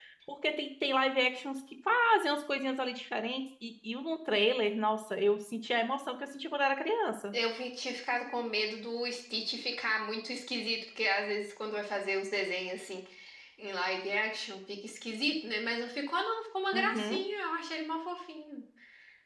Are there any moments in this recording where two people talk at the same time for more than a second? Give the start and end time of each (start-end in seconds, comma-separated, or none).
none